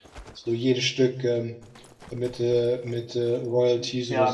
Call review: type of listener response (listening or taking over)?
taking over